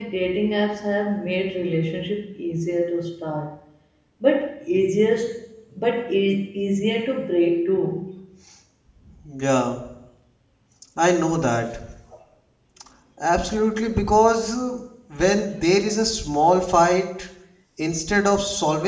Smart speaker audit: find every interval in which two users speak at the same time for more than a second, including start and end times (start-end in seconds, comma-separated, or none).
none